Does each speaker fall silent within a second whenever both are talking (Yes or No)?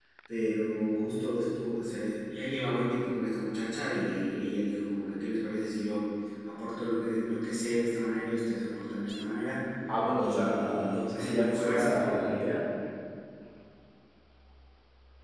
No